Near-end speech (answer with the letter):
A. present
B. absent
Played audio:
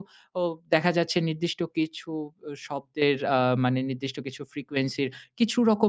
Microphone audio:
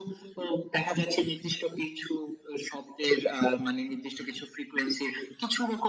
B